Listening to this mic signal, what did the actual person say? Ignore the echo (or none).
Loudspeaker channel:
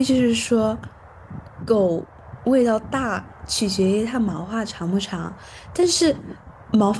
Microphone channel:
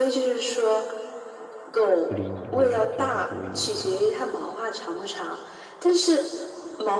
不理你，或者就是故意的，